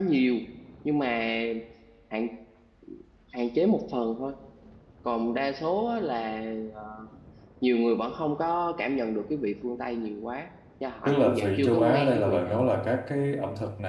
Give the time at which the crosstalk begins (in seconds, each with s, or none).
11.1 s